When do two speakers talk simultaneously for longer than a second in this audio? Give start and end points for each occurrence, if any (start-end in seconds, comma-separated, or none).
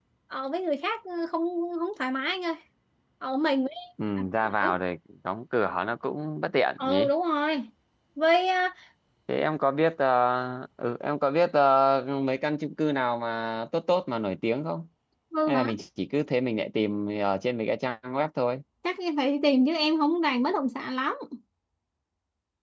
none